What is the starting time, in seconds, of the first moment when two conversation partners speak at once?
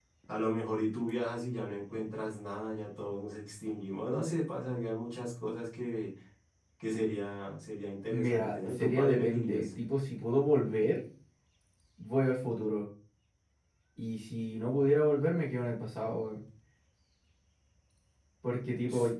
8.1 s

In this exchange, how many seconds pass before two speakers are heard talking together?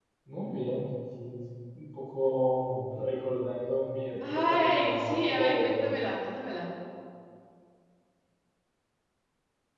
4.2 s

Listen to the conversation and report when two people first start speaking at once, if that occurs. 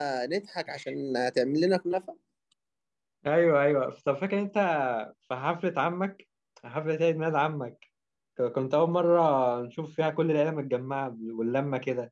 none

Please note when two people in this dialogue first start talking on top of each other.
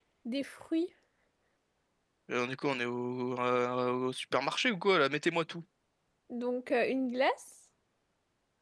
none

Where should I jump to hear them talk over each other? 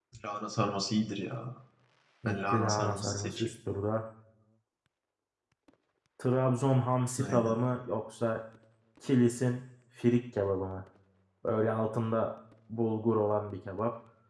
2.2 s

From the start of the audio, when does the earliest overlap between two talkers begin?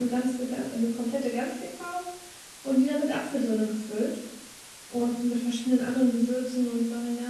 none

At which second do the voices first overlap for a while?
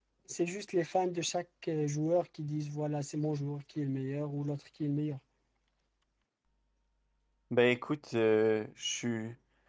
none

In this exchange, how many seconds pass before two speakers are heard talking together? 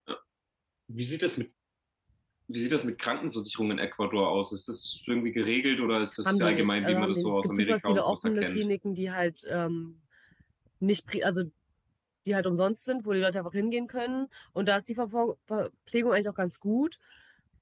6.2 s

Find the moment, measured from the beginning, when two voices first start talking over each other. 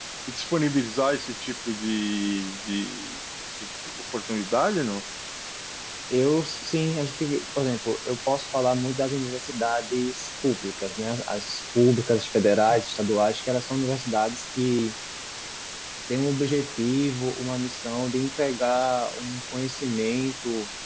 none

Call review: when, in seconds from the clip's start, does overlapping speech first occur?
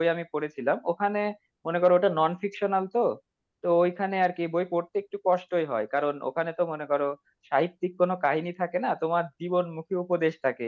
none

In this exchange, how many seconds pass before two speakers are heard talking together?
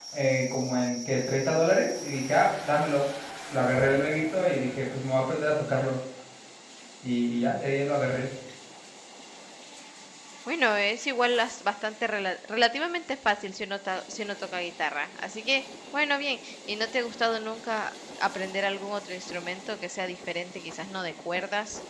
none

